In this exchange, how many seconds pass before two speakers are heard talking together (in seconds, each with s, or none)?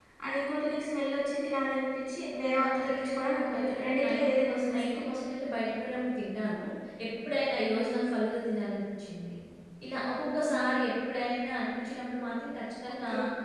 2.5 s